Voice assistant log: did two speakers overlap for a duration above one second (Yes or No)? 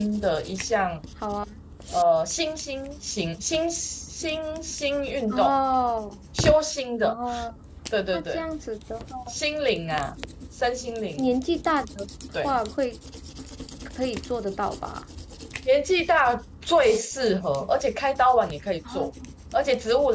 No